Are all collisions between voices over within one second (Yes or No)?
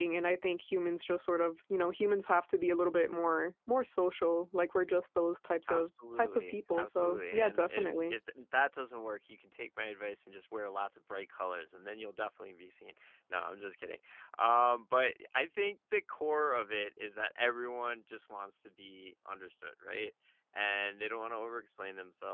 No